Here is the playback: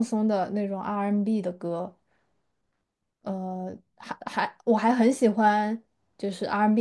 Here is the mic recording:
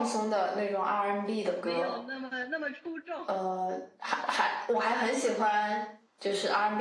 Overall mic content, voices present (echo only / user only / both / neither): both